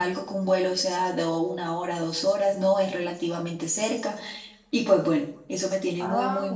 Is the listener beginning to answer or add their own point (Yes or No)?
Yes